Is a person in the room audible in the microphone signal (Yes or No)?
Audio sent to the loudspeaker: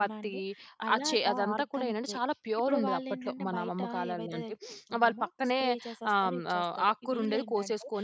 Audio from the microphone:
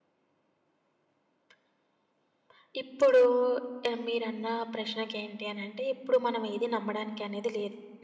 Yes